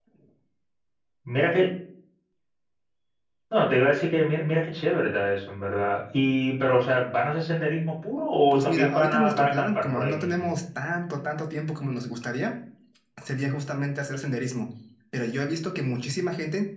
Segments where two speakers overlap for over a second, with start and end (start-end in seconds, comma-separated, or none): 8.5-10.4